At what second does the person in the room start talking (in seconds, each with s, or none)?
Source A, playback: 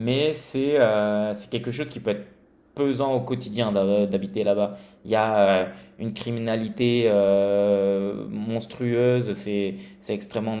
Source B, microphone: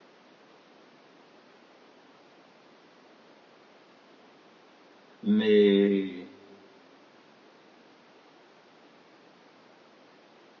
5.2 s